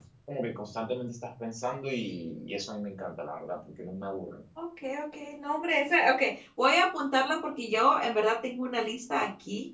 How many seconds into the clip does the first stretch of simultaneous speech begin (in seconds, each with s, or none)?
none